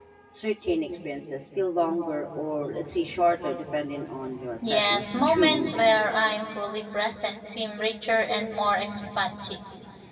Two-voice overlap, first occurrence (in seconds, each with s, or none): 4.6 s